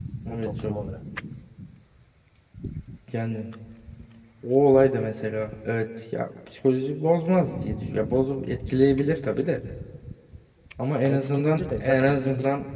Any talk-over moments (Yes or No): Yes